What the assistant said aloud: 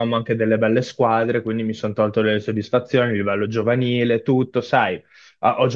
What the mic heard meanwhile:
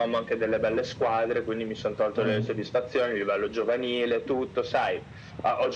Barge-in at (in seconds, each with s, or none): 2.1 s